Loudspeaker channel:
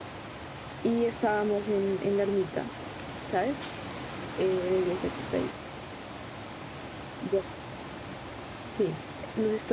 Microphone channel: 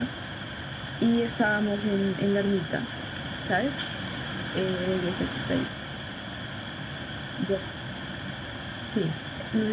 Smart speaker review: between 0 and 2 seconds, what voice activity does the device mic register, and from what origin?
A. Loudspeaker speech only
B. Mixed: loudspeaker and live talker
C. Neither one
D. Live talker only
A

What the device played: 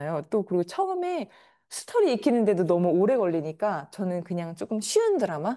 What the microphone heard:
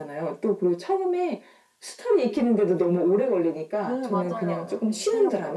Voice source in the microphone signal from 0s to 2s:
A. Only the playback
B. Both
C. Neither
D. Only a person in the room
A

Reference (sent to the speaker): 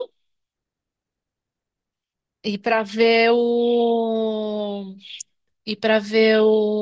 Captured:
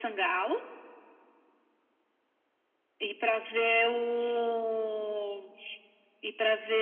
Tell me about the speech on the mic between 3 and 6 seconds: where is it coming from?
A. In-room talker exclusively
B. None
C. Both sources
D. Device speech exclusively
D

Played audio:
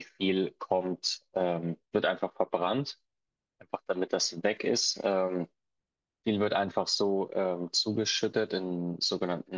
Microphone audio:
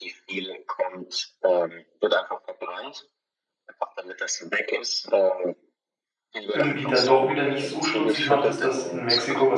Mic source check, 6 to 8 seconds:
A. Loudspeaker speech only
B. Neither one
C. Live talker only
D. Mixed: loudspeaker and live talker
D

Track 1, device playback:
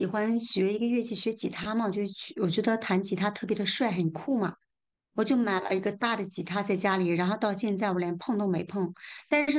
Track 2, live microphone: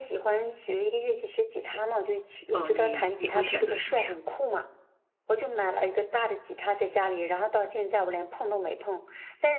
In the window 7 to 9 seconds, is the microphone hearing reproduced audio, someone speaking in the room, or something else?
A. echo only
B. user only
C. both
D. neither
A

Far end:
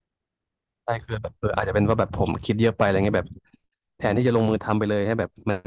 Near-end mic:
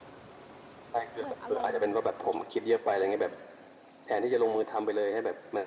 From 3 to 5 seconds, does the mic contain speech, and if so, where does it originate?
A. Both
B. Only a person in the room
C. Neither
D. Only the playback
D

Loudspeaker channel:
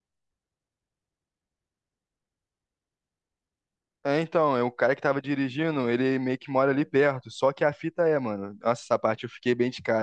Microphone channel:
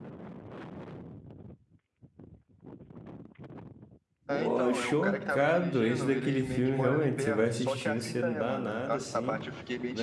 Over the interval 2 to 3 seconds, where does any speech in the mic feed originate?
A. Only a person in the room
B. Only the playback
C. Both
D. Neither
D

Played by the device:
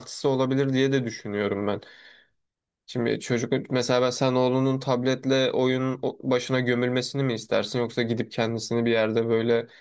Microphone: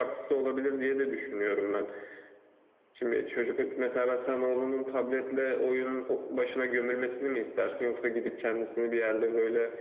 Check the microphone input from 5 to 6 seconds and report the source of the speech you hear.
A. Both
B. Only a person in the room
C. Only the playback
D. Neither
C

